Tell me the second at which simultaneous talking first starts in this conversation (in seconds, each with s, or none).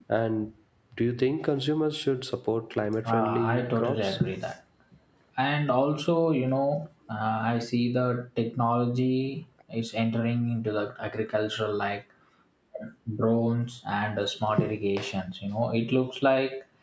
3.0 s